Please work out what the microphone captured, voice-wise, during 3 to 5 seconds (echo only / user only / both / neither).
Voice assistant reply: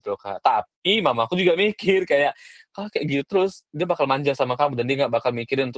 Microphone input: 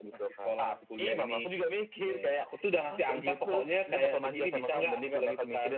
both